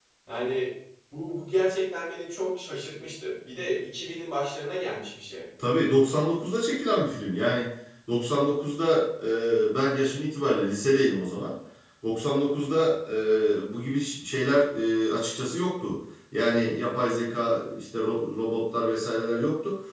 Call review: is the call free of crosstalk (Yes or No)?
Yes